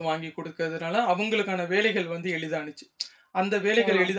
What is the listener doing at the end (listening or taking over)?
listening